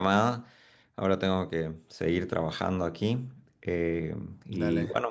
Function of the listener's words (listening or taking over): listening